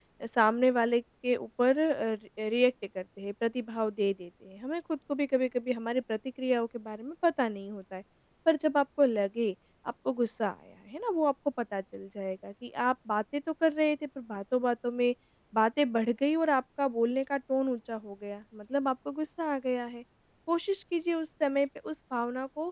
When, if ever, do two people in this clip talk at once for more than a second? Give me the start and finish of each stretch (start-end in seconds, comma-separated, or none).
none